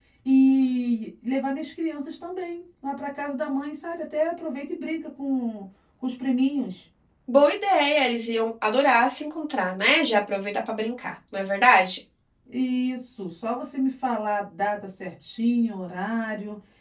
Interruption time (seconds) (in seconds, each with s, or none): none